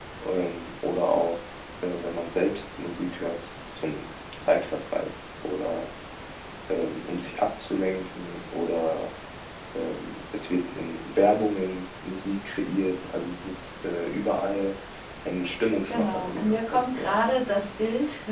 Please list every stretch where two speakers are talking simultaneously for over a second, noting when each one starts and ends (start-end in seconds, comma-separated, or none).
15.8-17.2